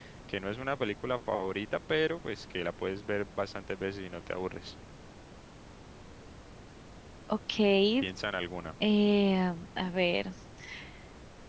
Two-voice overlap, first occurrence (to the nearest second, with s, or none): none